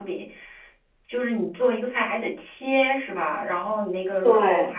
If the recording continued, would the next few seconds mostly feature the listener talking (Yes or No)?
No